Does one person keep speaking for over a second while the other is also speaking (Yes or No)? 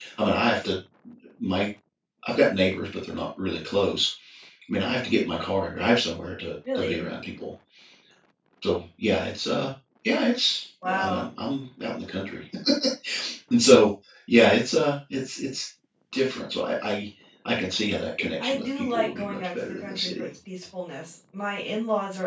Yes